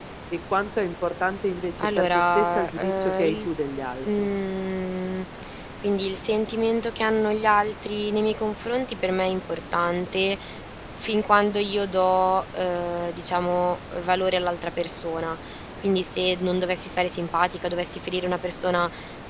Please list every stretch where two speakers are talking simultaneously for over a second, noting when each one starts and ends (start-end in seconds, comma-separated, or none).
1.8-3.5